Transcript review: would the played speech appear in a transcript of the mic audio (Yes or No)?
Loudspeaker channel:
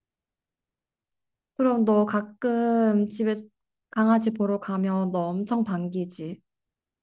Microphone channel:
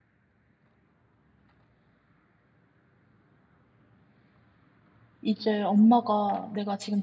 No